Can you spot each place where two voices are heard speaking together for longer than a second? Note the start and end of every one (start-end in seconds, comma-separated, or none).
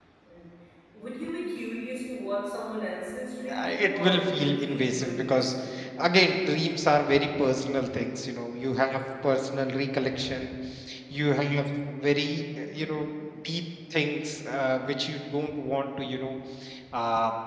3.5-5.5